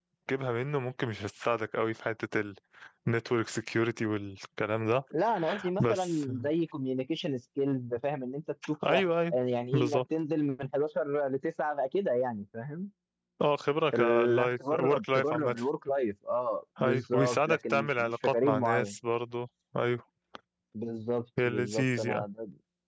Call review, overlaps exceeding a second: present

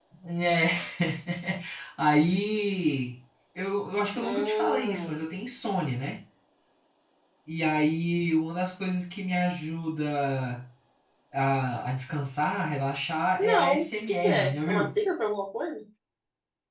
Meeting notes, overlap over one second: present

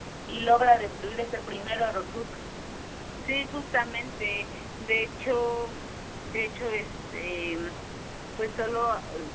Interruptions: none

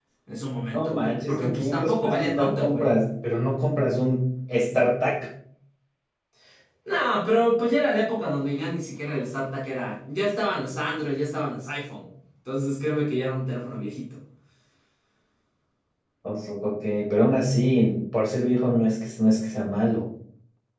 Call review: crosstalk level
present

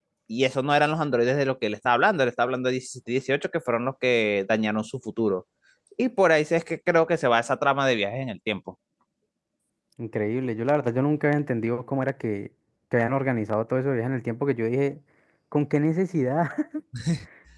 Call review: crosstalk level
none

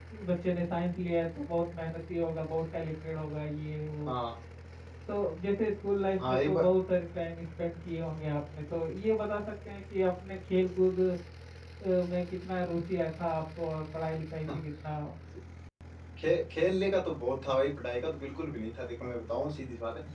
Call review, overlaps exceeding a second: none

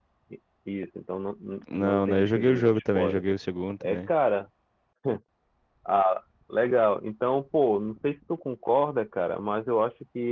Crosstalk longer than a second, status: present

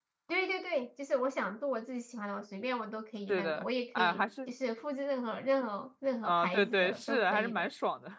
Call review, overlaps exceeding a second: present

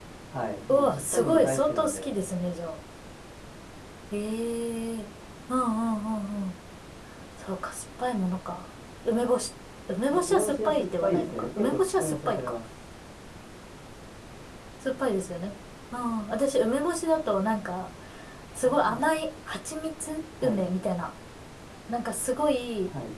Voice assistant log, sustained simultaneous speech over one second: present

